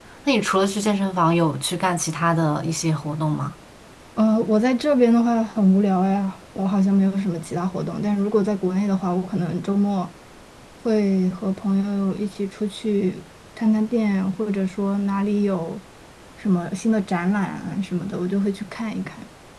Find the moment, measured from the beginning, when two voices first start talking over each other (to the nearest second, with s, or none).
none